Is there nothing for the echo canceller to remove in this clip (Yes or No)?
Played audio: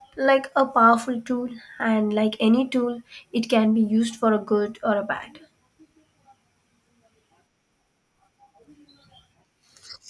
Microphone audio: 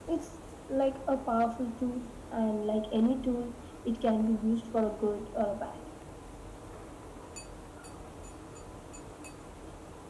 No